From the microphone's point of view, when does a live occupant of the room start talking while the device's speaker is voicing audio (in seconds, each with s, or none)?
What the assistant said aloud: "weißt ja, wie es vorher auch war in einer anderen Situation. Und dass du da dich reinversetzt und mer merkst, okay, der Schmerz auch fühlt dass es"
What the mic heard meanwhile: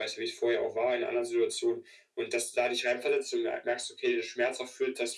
none